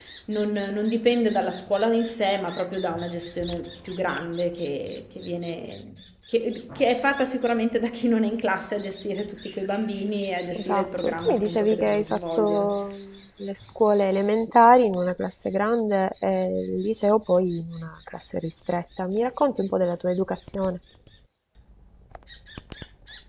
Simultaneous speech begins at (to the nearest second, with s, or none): 11 s